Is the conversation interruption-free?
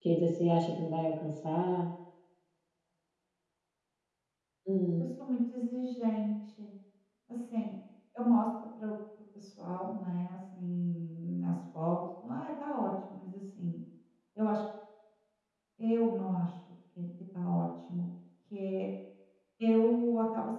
Yes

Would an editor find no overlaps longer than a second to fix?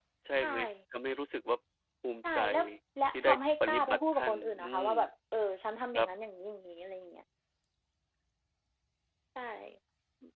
No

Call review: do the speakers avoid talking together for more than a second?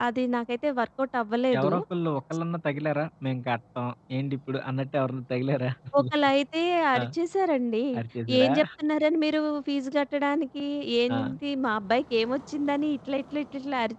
Yes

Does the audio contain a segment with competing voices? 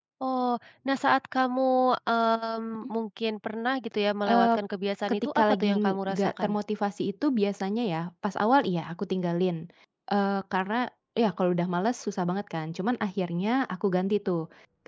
Yes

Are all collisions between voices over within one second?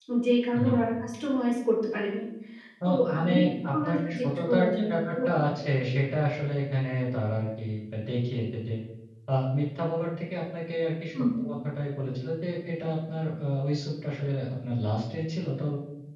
No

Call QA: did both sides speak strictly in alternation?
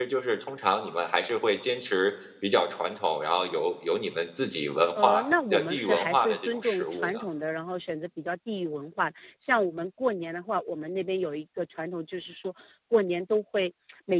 No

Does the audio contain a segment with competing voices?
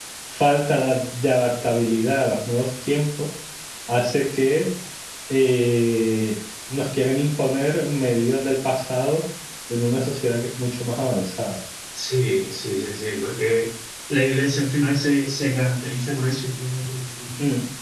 No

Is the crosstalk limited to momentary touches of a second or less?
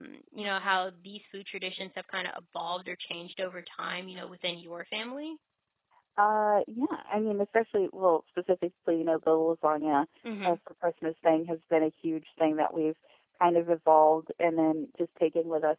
Yes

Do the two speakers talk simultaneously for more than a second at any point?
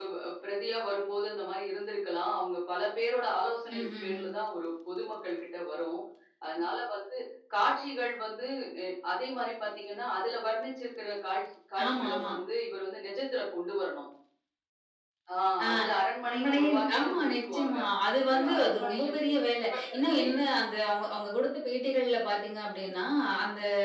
Yes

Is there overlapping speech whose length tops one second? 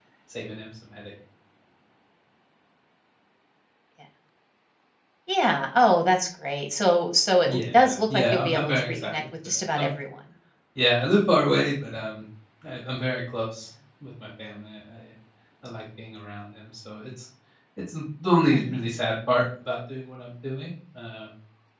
Yes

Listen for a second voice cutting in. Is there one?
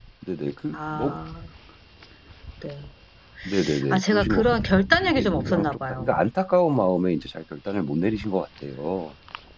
Yes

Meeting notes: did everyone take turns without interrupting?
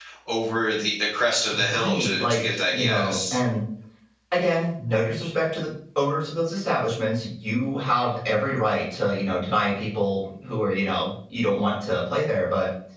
No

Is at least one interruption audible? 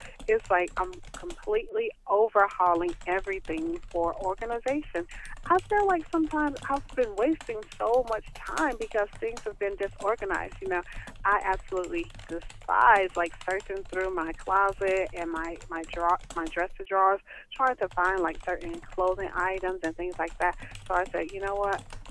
No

